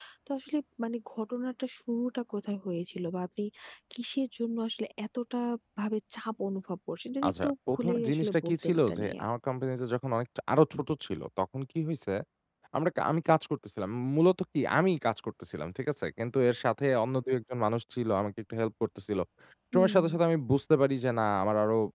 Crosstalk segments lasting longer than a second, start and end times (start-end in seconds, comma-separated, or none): 7.3-9.2